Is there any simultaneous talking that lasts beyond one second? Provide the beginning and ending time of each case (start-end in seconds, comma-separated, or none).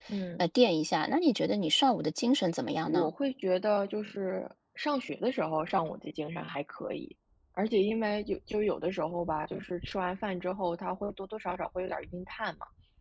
none